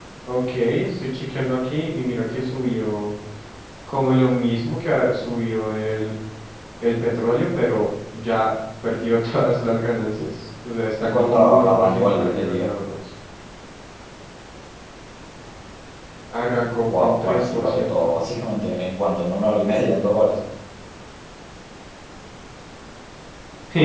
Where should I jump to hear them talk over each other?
11 s

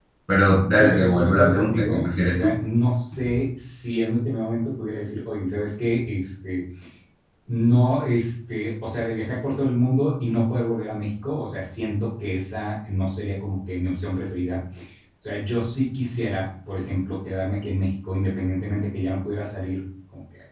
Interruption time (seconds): 1 s

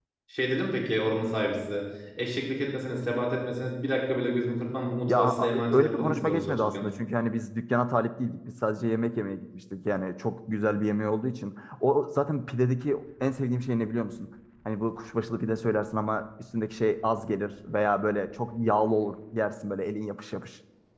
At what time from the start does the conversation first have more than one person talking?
5 s

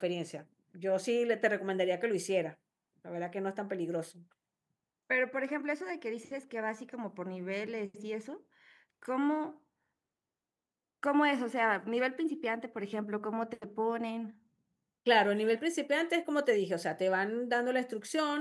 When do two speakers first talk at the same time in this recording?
none

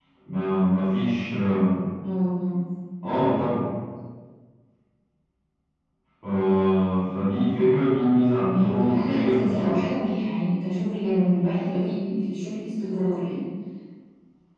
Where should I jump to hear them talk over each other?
8 s

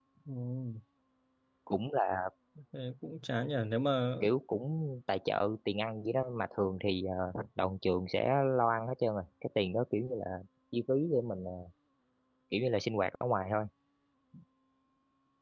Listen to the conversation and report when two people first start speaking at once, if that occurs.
none

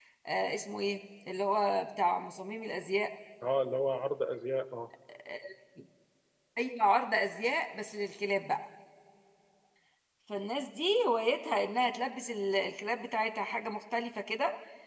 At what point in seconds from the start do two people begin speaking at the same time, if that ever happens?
none

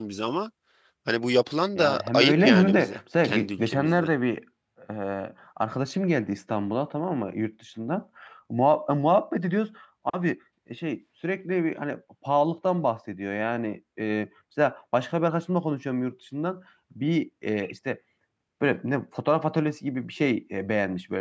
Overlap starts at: 2 s

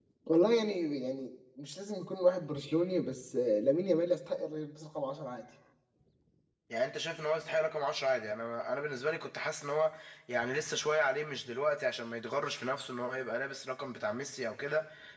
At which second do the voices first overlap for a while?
none

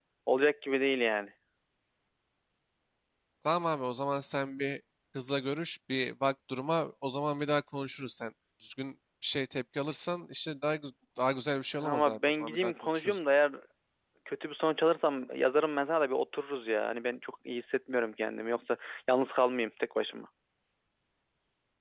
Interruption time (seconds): 12 s

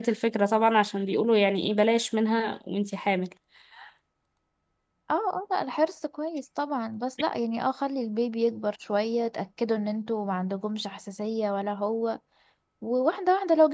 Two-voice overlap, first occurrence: none

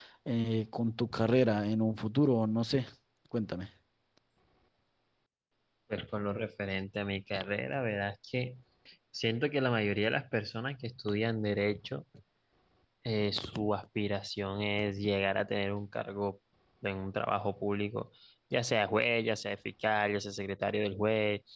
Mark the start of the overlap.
none

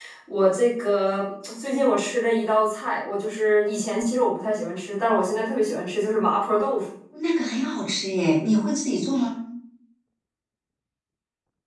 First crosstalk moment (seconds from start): none

